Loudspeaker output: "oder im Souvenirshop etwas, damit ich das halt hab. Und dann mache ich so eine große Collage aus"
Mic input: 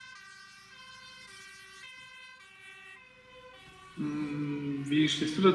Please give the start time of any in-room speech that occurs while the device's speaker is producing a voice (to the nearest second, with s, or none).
4 s